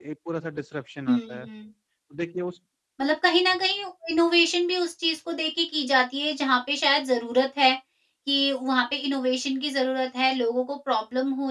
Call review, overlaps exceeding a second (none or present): none